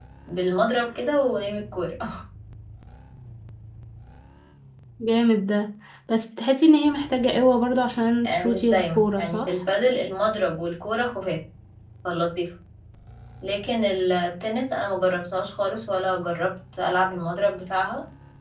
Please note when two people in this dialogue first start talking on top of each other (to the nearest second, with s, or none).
8 s